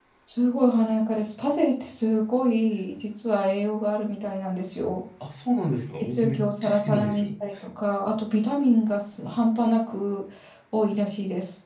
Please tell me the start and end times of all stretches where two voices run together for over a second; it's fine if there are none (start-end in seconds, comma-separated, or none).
6.0-7.3